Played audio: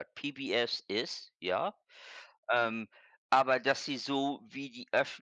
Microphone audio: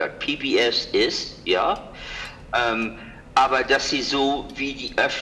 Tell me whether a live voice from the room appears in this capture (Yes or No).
No